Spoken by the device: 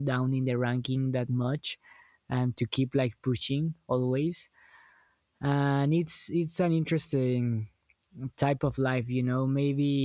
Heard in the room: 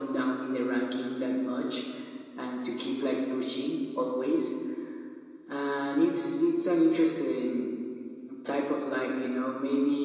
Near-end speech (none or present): none